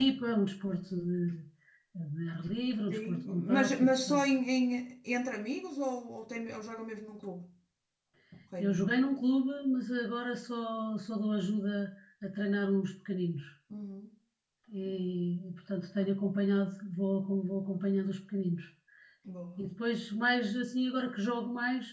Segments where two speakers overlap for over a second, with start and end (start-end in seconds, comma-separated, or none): 2.9-4.2